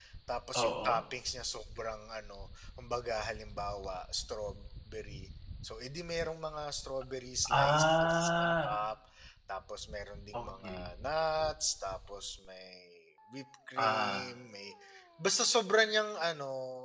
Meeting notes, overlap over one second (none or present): present